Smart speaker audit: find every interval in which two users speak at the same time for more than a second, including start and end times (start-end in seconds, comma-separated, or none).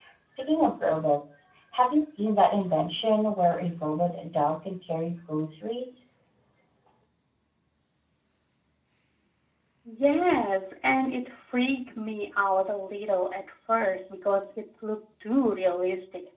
none